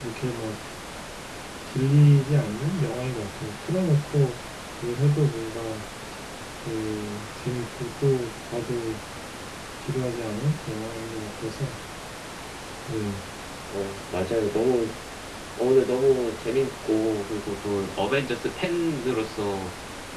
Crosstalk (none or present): none